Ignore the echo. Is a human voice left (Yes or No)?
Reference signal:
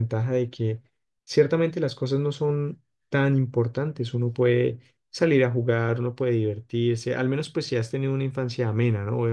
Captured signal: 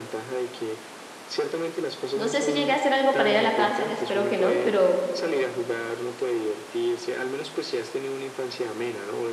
Yes